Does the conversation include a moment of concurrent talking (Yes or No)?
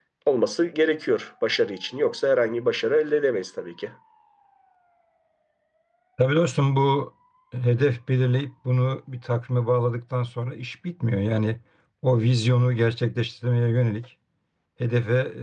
No